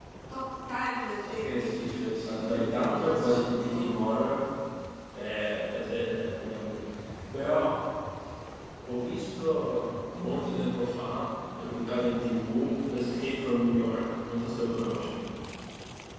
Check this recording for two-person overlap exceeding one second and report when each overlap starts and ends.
1.2-3.9

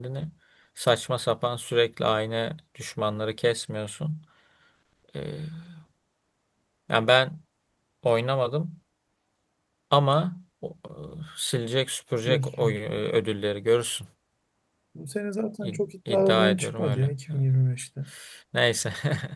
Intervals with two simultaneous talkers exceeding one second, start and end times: 15.6-17.4

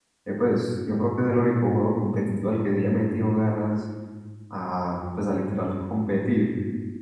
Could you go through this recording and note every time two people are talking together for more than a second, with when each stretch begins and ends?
none

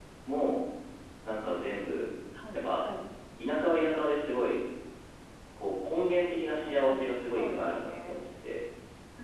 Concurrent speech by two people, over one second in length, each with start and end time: 6.6-8.2

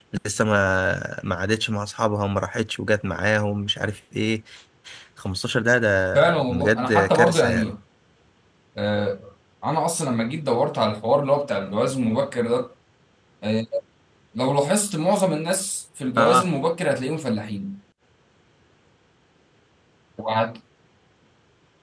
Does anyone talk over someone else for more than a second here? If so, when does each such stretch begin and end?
6.1-7.7

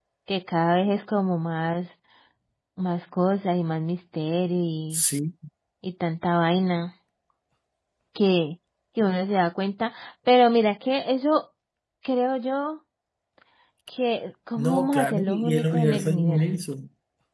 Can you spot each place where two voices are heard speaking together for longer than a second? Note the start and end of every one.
14.6-16.4

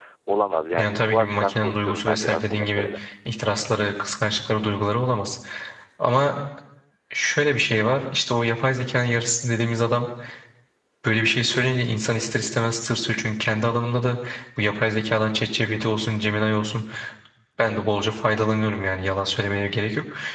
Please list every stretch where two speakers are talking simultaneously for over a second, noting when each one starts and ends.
0.8-2.9

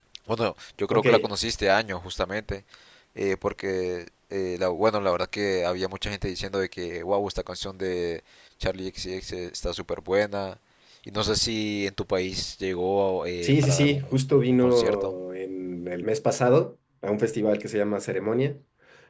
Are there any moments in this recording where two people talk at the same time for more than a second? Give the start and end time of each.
13.4-15.1

